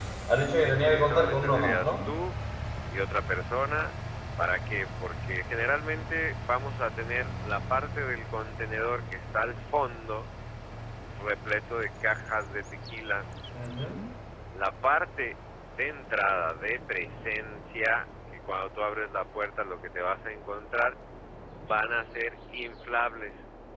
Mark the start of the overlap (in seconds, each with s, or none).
0.6 s